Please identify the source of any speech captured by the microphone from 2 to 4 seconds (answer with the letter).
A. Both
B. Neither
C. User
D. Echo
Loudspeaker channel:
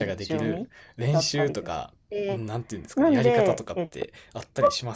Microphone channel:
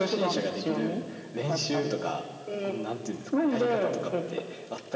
D